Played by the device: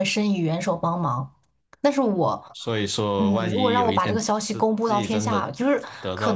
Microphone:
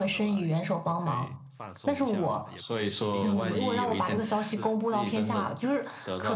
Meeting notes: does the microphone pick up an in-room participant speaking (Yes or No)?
Yes